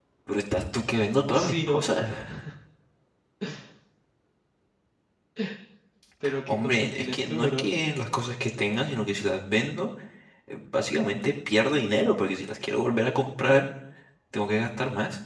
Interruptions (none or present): present